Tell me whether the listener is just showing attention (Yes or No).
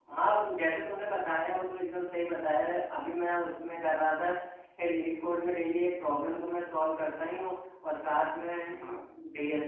Yes